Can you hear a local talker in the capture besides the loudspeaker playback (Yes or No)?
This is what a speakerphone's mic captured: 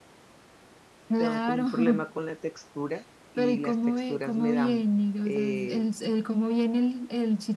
Yes